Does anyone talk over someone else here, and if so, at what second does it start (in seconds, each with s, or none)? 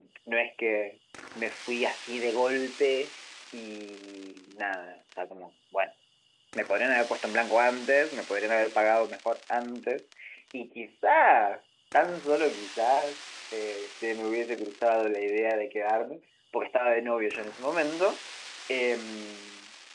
none